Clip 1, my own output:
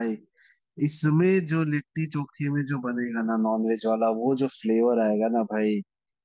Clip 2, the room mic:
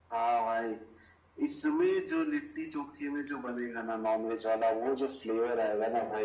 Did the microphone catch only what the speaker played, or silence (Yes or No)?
Yes